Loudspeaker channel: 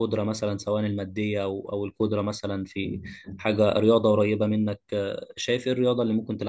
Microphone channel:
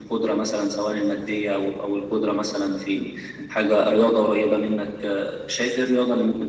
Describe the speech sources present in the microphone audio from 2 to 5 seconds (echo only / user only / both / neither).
echo only